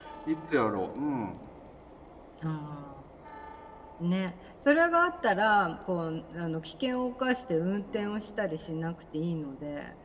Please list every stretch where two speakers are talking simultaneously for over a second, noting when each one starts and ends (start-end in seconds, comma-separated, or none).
none